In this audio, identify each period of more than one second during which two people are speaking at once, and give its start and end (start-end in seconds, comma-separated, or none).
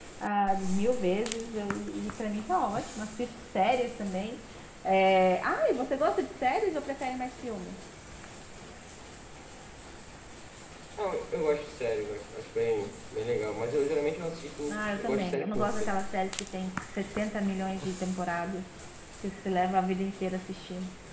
14.7-15.9